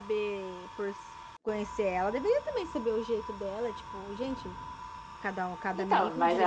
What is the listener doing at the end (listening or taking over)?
taking over